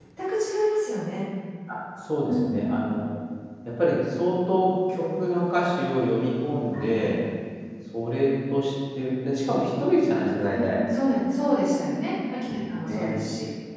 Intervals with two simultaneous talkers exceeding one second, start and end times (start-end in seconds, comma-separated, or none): none